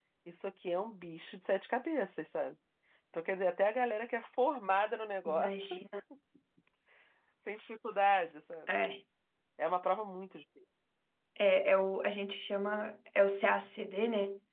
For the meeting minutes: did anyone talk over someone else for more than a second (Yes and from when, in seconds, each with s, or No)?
No